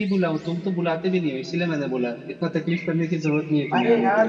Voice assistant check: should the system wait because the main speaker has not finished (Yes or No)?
No